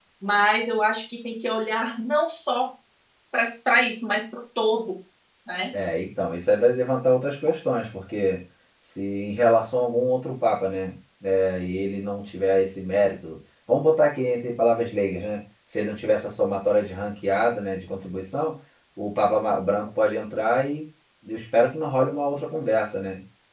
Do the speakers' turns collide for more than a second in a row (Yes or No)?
No